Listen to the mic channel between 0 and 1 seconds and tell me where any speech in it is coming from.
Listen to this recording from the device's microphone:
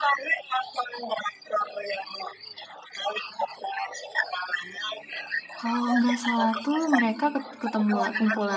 echo only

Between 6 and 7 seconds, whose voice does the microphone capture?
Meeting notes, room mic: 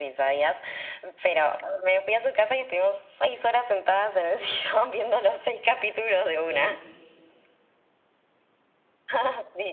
both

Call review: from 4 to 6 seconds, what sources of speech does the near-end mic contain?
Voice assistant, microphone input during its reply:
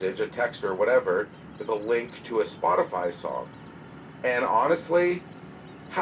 echo only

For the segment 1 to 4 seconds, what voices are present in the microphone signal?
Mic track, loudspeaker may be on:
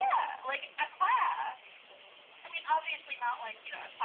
echo only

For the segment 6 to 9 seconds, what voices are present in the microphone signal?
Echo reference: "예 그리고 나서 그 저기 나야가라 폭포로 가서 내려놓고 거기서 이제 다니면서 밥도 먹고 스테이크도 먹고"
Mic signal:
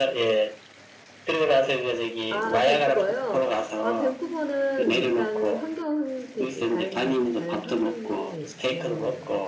both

